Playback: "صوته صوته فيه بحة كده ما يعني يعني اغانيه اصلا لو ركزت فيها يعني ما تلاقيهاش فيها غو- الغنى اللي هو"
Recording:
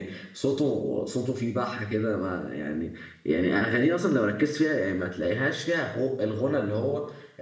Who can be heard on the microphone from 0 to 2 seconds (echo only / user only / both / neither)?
echo only